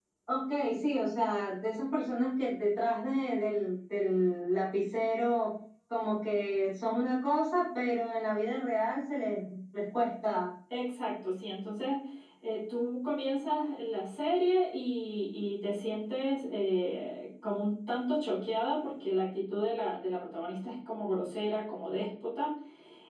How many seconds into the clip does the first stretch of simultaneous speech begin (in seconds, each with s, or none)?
none